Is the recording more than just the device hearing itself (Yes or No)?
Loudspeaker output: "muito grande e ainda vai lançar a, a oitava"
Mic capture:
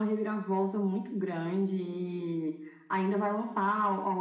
No